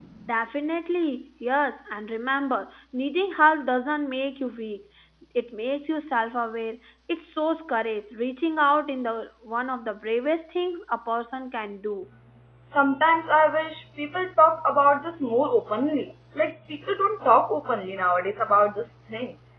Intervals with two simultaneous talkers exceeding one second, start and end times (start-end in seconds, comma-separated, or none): none